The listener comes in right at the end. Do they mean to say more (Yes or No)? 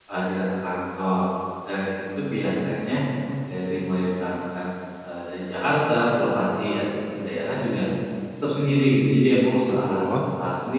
No